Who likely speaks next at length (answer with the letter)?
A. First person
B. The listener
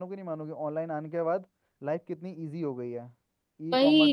B